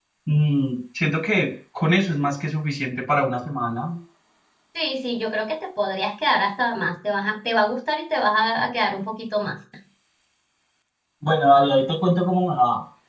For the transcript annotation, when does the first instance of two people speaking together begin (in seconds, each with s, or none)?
none